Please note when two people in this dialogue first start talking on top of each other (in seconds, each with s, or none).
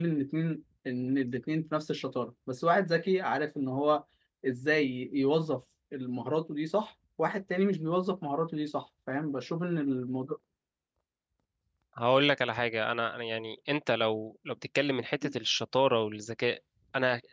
none